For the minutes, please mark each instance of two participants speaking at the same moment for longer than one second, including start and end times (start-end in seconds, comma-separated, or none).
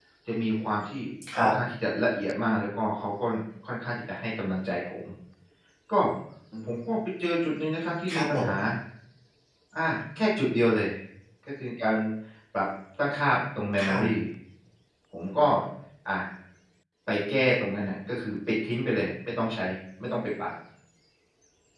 none